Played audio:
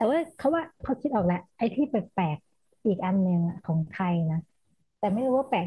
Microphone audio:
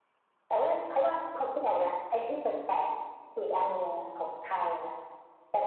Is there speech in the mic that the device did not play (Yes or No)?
No